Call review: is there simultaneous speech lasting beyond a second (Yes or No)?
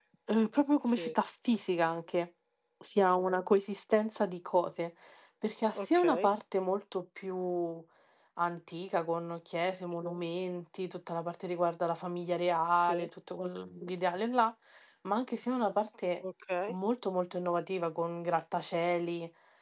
No